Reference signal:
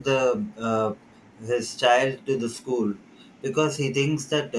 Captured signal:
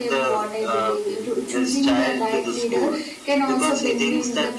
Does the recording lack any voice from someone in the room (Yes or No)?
No